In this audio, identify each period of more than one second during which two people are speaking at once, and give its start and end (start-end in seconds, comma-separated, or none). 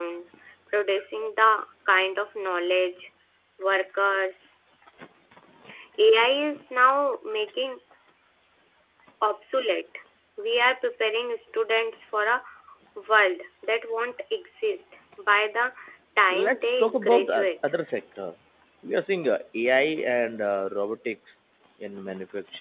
16.3-17.5